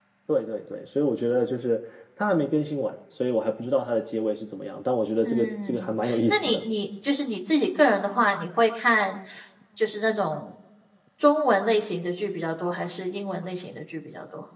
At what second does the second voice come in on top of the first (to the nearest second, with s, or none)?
5 s